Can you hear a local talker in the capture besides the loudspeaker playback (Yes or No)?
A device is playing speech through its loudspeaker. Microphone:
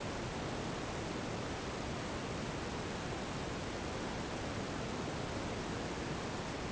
No